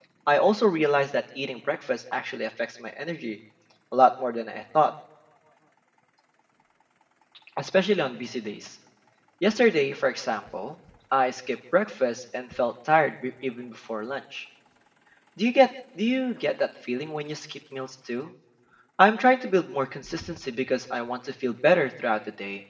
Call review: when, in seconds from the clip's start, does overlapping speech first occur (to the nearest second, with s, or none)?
none